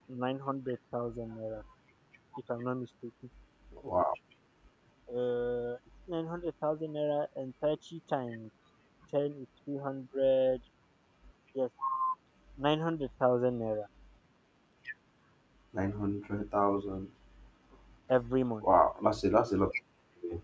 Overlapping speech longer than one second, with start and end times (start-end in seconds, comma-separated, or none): none